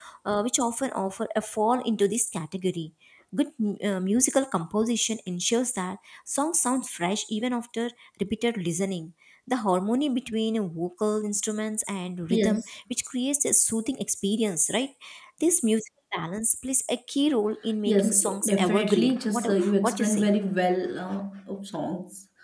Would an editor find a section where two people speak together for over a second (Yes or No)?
Yes